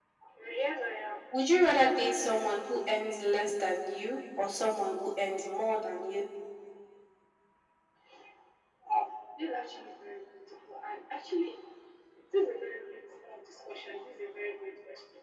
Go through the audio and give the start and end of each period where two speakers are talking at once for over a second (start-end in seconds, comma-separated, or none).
none